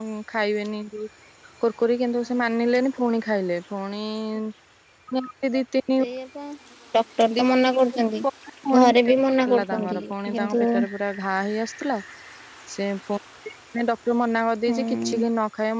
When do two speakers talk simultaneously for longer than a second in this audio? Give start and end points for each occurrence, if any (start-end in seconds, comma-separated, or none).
9.4-10.7